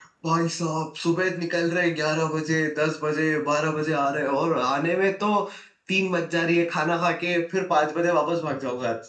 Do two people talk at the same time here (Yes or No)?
No